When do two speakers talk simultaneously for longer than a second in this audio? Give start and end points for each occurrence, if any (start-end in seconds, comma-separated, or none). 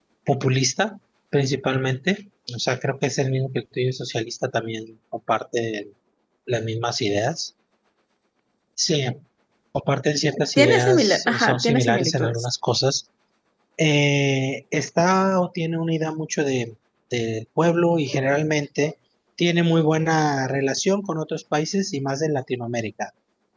10.6-12.5